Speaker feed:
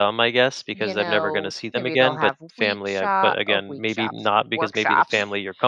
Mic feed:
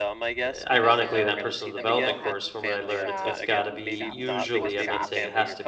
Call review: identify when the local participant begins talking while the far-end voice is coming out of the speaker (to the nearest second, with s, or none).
0 s